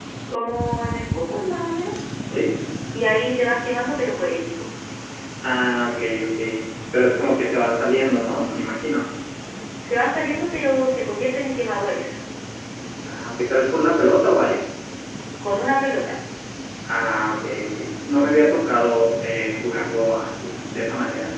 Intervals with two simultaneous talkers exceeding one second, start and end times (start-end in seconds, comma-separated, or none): none